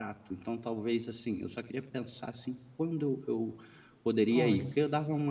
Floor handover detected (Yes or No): No